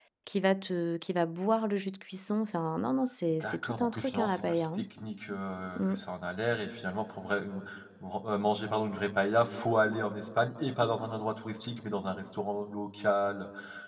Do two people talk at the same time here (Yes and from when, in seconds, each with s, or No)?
Yes, from 3.4 s